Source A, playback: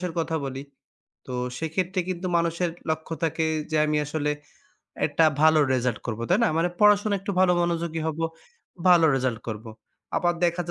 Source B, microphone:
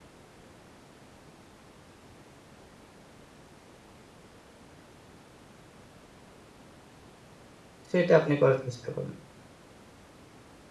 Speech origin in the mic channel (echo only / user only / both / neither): user only